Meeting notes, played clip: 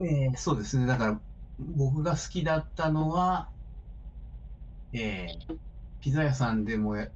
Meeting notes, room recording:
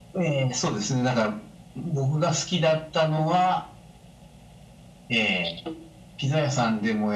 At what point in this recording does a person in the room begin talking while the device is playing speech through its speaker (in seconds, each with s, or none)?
none